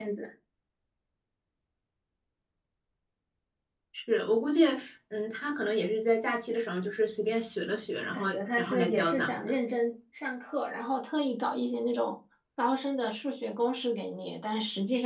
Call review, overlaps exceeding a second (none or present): present